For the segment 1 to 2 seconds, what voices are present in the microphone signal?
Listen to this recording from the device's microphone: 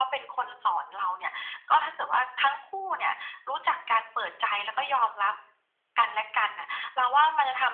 echo only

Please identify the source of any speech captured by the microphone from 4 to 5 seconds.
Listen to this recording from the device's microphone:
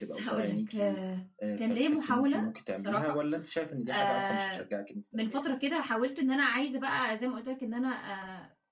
both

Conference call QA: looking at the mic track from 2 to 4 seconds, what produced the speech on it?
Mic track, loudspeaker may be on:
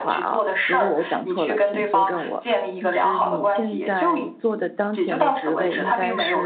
both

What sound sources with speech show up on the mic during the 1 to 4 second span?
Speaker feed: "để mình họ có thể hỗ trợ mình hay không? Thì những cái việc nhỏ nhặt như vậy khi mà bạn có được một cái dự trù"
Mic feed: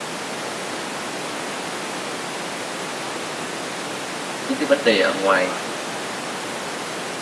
neither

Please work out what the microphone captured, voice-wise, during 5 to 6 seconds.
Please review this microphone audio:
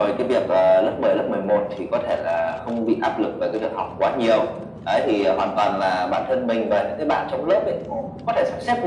echo only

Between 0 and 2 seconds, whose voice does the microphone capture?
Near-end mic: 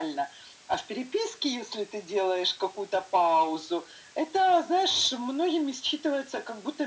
echo only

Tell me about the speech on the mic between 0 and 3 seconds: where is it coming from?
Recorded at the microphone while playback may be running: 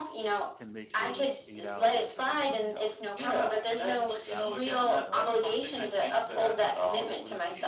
both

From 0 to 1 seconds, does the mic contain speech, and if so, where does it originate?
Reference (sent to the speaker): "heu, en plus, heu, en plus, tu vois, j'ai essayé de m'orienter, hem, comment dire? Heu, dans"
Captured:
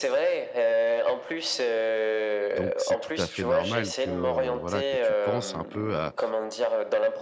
echo only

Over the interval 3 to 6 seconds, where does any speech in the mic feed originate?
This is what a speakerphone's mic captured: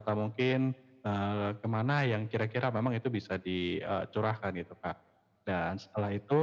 echo only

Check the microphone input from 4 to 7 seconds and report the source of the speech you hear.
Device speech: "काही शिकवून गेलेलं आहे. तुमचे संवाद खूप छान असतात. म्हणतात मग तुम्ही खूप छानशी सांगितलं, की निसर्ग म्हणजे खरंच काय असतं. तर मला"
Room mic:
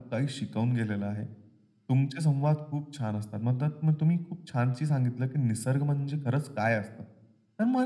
echo only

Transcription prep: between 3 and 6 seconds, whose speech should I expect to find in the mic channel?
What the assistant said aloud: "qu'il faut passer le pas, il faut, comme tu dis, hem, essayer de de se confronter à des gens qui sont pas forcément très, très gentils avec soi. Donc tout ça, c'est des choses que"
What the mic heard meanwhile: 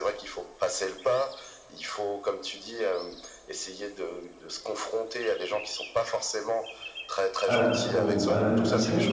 echo only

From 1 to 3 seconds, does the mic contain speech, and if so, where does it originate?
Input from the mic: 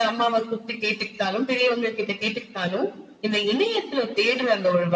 echo only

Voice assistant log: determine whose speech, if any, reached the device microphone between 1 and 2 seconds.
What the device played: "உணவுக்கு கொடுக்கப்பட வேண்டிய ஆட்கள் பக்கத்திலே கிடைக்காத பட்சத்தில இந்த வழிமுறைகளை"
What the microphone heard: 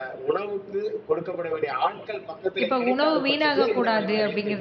echo only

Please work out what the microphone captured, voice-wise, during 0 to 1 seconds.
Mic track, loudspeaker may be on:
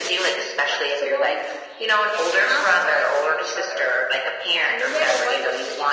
echo only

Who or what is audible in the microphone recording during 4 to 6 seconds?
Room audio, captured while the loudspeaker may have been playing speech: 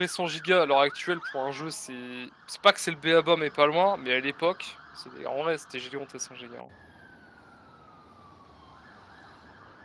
user only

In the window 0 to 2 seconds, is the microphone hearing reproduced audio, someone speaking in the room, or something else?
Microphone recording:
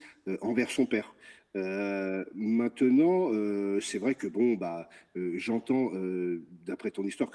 echo only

